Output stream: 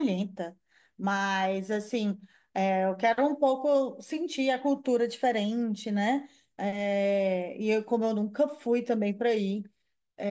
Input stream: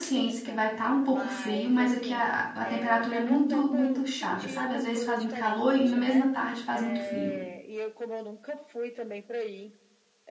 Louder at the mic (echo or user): user